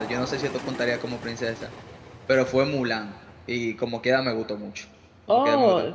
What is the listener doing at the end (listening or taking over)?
taking over